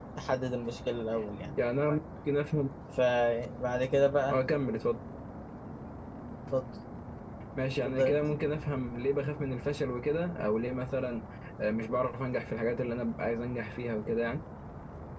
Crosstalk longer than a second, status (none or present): none